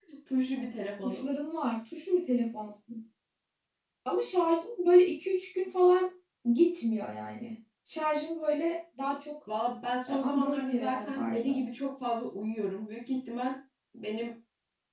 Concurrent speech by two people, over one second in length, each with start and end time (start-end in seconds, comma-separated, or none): 10.1-11.6